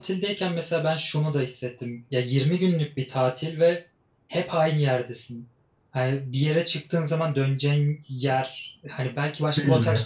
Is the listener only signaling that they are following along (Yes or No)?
Yes